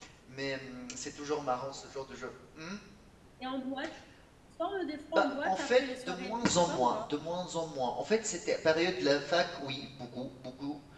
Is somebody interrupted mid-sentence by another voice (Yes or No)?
Yes